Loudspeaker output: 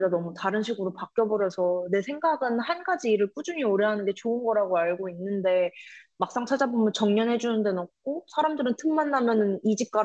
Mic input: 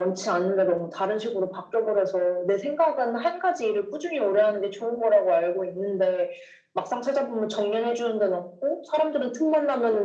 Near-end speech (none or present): none